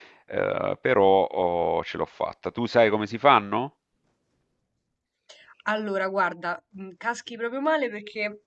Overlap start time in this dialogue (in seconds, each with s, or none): none